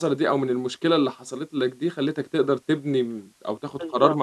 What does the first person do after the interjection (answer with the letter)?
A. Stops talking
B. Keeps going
B